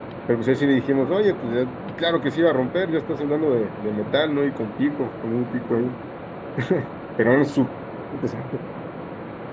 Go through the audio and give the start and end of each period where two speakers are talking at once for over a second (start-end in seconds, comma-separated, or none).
none